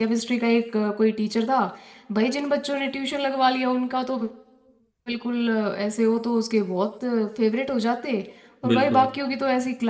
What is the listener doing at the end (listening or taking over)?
listening